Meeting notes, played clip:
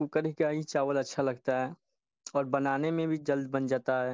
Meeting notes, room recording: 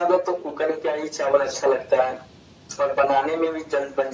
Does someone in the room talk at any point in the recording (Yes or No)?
No